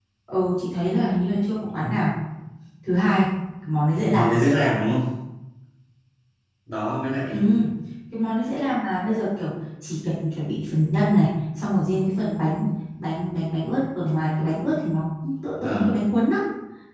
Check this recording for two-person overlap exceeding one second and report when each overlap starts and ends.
none

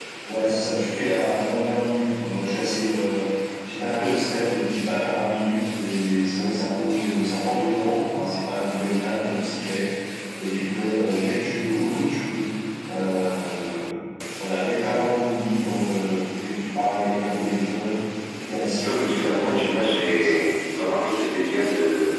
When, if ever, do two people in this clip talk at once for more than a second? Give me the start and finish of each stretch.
18.9-20.4

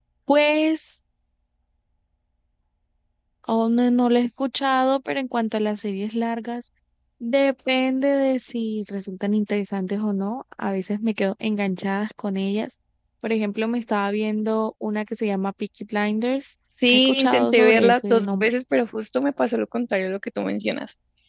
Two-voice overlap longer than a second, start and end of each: 16.9-18.5

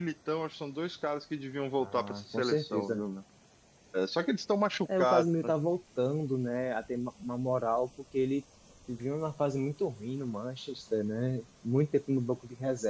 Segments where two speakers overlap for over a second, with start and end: 1.8-3.0

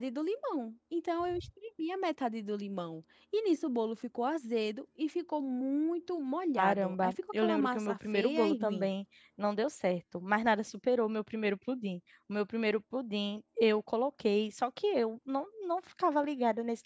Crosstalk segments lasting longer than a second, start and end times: 6.6-8.9

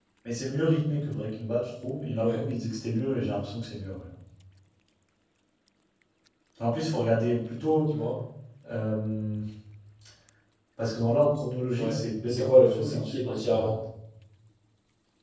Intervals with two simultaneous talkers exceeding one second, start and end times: 11.8-13.7

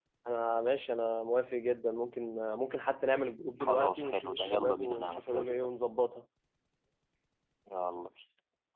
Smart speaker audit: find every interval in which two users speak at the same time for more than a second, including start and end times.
3.6-5.7

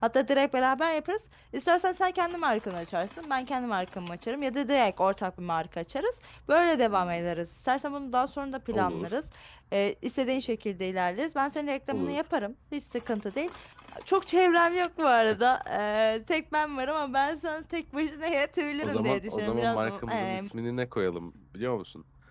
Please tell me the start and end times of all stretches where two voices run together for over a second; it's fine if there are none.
18.8-20.4

